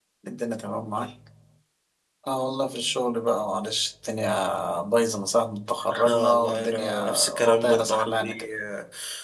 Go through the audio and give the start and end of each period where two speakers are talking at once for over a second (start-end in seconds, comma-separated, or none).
6.1-8.5